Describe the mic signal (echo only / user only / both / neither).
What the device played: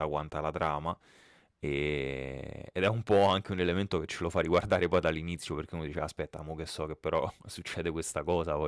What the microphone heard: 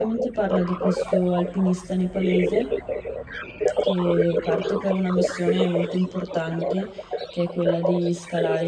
both